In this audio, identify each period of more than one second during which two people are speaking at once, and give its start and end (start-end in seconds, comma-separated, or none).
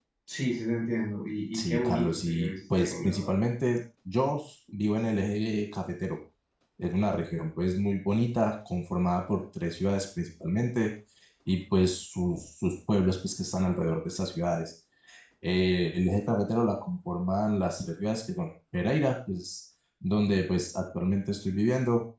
1.5-3.3